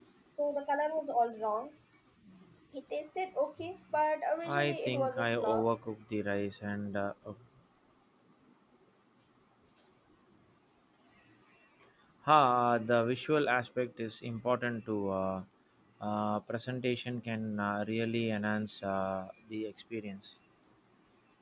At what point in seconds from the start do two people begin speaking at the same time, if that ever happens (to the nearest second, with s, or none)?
4 s